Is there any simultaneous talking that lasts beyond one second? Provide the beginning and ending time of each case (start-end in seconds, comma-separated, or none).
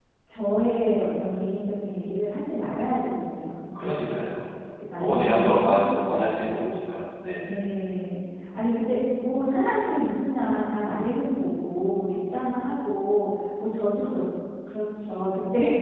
5.0-6.5